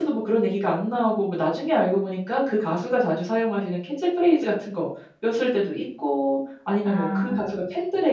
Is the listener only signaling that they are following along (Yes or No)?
Yes